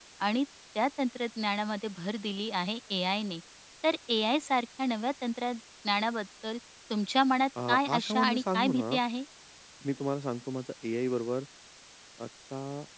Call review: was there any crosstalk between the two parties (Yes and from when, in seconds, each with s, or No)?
Yes, from 7.6 s